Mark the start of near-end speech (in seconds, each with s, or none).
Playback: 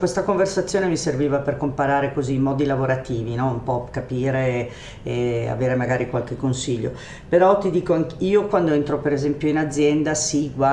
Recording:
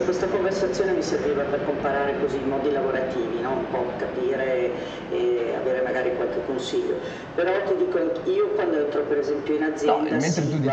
9.8 s